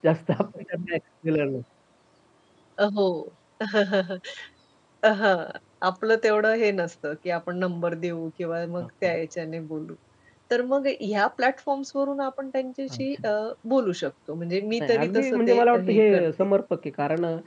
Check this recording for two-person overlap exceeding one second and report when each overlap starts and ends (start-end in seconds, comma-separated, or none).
14.8-16.3